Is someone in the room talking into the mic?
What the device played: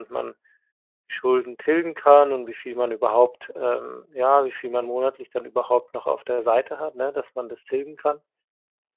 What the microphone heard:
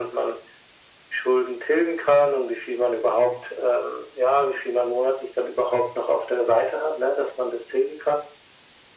No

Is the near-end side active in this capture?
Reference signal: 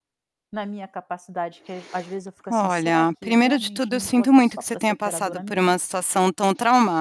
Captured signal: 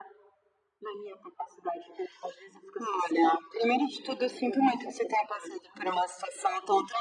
No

